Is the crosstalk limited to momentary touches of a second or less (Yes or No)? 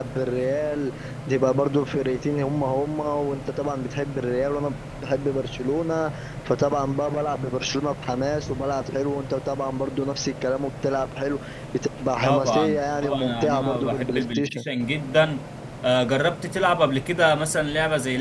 No